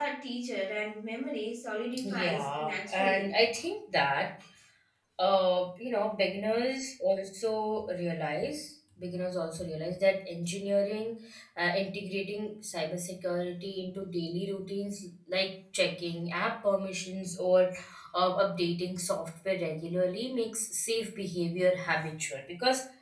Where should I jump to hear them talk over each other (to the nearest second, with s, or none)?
2 s